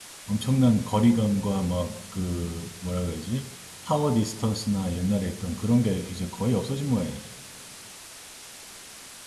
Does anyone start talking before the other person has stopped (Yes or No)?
No